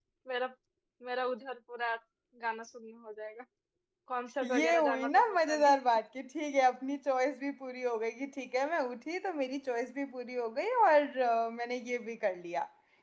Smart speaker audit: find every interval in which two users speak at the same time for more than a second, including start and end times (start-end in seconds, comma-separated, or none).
4.4-5.8